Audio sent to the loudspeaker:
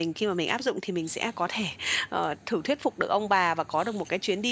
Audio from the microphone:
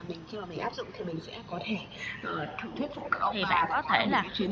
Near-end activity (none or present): present